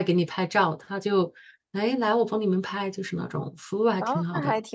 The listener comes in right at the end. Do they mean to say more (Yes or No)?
Yes